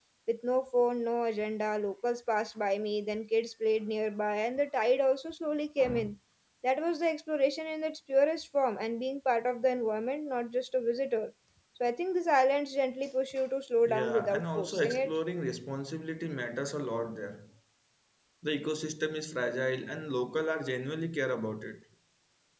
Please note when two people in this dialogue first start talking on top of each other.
13.9 s

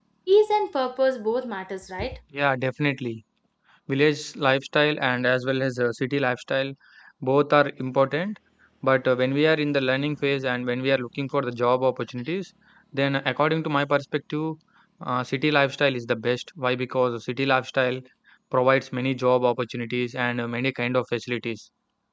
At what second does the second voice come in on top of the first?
none

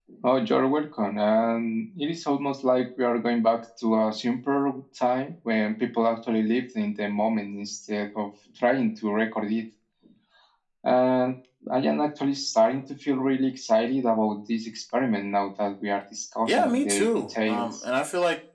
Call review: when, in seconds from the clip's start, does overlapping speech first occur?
16.4 s

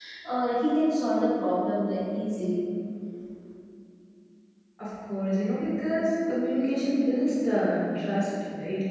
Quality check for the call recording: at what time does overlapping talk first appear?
none

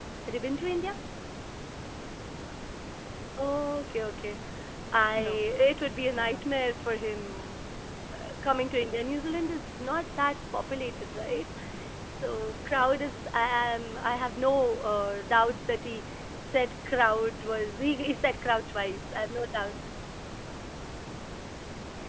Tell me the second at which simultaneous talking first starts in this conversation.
5.2 s

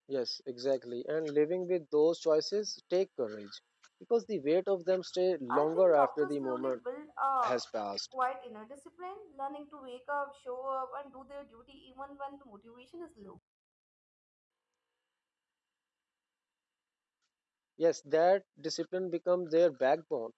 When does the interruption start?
5.5 s

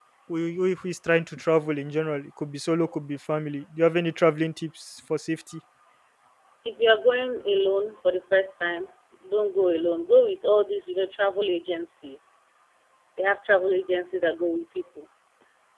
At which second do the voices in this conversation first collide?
none

